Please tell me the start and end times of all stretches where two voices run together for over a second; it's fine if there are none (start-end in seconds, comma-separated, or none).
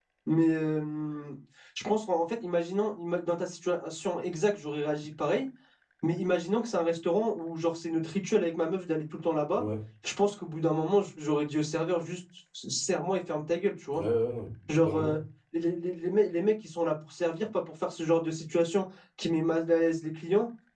none